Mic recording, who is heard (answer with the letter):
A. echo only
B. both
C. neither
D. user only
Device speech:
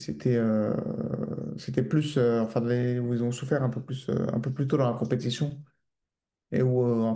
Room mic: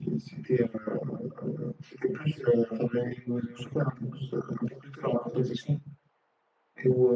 A